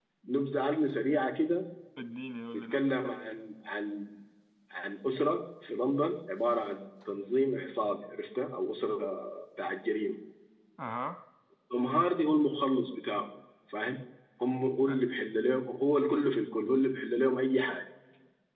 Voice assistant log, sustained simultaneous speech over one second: none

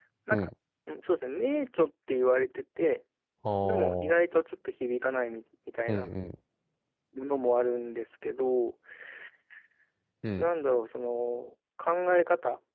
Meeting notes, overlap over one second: none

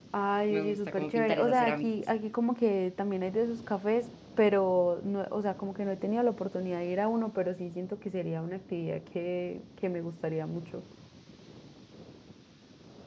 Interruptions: present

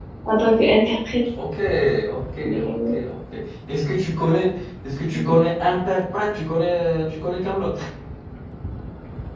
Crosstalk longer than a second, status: none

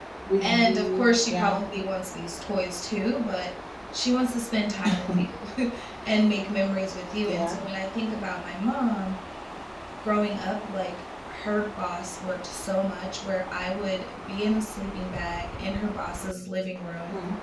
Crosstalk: present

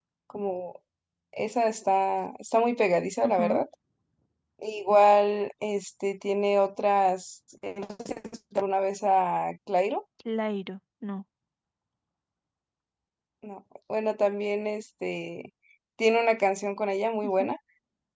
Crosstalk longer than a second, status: none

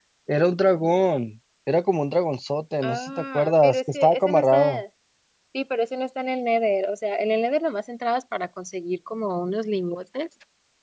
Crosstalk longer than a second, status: present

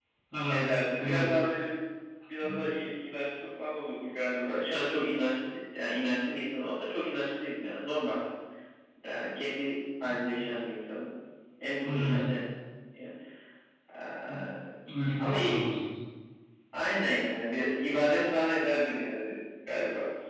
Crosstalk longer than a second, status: none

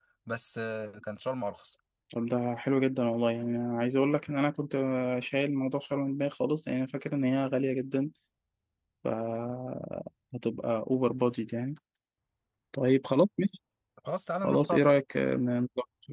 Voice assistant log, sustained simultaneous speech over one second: none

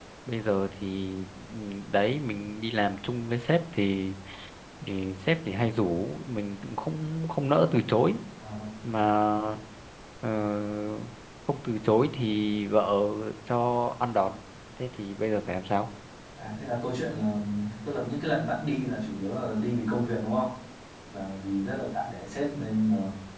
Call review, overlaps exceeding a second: none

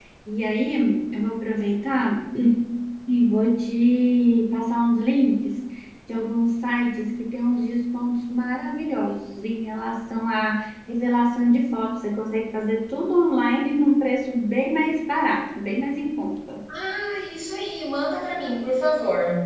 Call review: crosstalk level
none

